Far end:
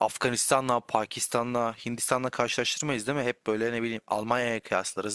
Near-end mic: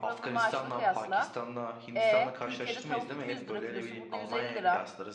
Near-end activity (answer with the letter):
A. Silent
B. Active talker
B